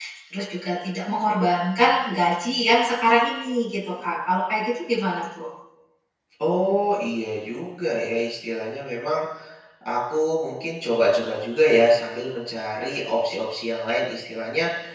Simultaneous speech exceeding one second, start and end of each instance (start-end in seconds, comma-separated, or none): none